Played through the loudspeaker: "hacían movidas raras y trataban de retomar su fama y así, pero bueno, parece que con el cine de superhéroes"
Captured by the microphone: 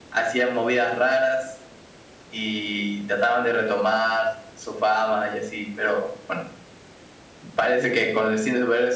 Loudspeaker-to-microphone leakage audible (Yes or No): Yes